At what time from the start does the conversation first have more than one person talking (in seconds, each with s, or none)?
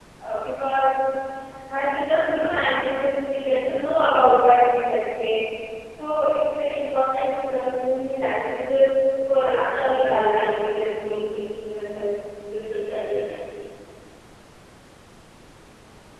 9.4 s